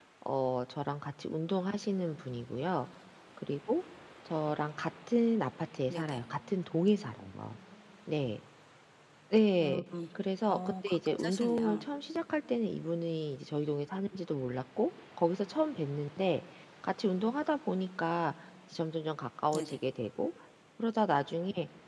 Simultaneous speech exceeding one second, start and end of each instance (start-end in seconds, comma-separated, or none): 10.5-11.8